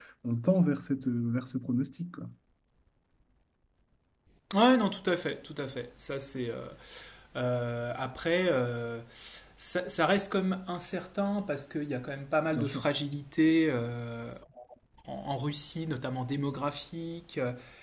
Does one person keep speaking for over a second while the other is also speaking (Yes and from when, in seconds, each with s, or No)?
No